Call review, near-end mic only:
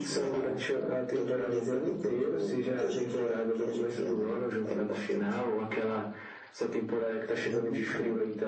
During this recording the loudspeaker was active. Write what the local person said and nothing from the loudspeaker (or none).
eu nunca.